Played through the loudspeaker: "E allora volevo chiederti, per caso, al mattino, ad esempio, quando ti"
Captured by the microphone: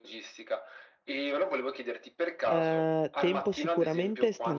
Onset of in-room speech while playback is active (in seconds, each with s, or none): 2.4 s